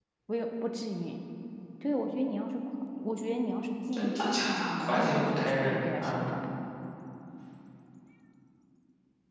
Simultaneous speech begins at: 3.9 s

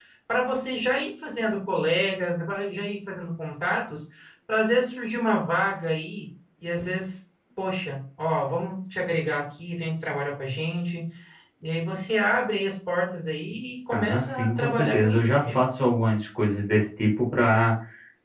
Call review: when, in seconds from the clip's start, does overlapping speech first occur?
13.9 s

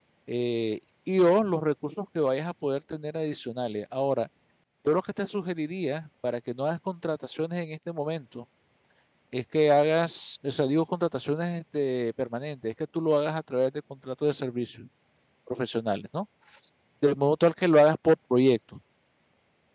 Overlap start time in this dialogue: none

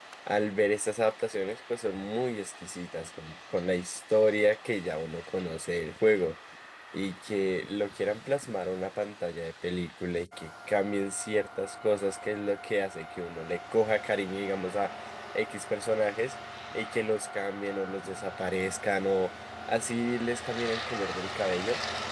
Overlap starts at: none

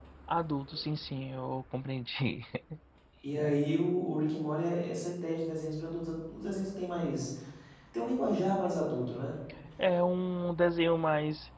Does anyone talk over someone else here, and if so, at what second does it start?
none

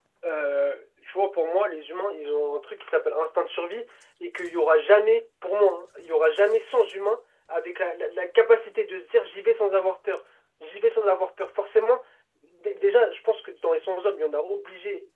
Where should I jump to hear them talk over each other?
none

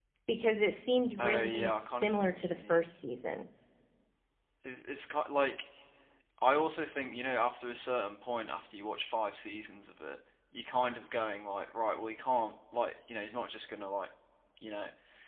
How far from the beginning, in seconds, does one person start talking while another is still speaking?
1.2 s

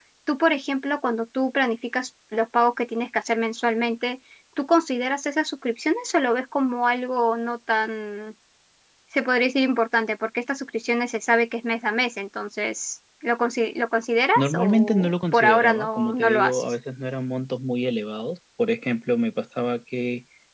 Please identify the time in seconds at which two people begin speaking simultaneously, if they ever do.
14.4 s

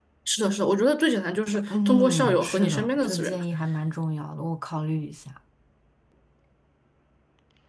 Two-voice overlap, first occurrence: 1.7 s

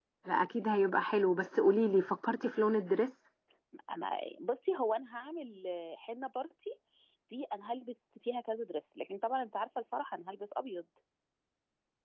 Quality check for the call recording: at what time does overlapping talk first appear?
none

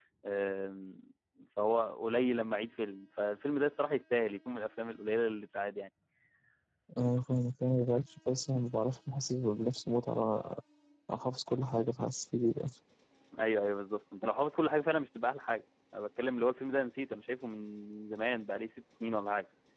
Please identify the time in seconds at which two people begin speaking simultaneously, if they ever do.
none

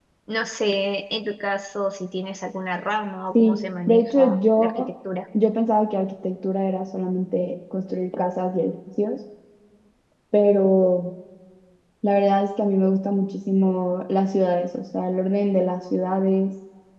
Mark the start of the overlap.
3.4 s

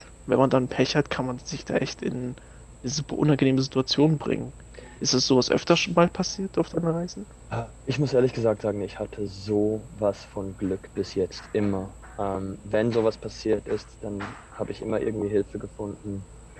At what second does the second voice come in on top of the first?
none

